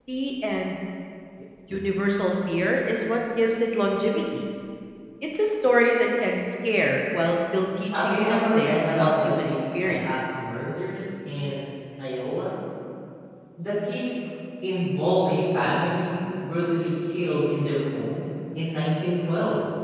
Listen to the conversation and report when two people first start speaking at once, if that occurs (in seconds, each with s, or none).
7.9 s